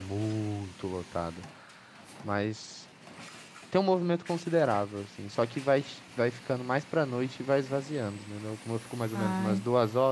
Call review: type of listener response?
listening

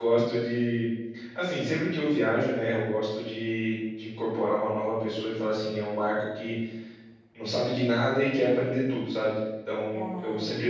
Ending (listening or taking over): listening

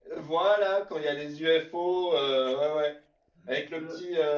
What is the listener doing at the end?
listening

